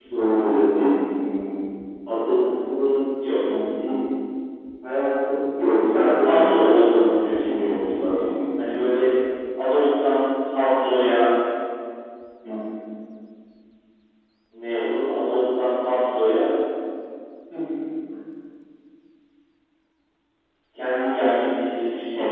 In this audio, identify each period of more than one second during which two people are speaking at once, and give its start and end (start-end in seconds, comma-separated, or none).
5.8-8.4